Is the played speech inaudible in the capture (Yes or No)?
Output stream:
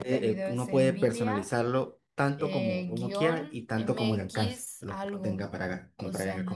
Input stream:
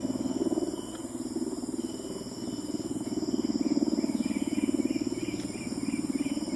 Yes